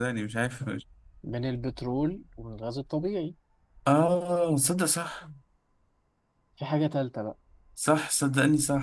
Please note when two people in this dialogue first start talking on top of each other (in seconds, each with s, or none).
none